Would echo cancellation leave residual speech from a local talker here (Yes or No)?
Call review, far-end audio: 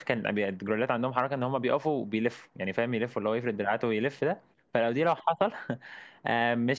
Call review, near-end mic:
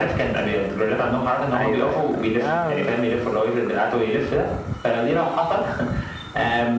Yes